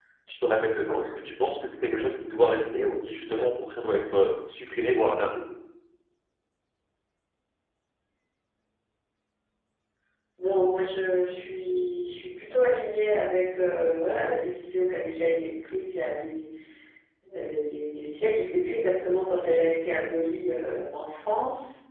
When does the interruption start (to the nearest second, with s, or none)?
none